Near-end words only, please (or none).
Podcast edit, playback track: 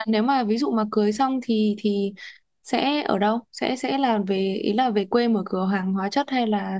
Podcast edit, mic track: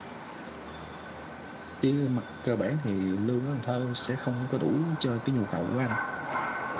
chứ mặt cơ bản thì lương ở Cần Thơ sẽ không có đủ cho cái nhu cầu của anh